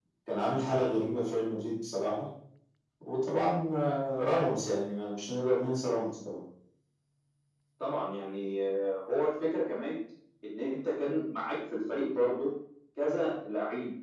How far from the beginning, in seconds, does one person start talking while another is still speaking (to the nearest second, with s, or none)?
none